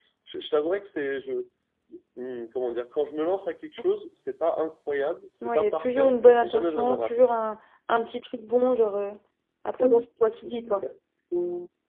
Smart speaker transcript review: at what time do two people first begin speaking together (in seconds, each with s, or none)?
5.4 s